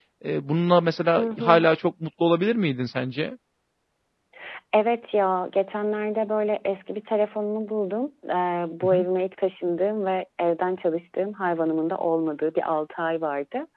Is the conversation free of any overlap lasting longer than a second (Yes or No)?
Yes